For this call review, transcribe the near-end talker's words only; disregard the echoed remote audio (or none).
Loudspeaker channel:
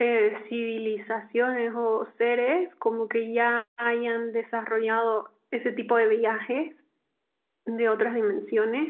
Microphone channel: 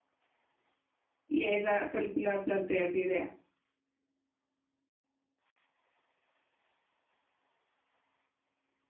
Y esa película plantea esa idea.